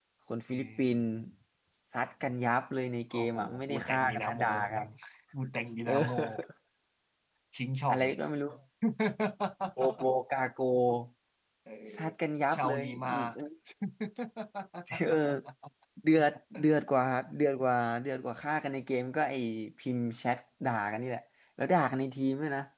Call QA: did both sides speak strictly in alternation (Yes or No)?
No